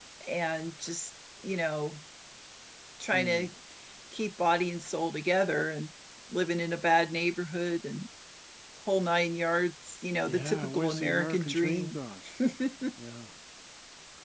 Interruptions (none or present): present